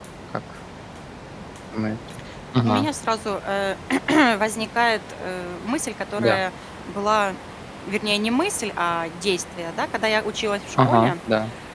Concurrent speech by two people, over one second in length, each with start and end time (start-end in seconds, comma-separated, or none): none